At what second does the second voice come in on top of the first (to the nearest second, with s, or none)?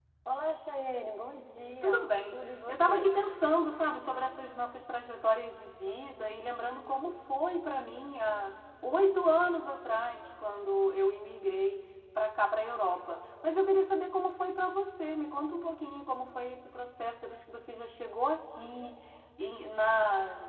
2 s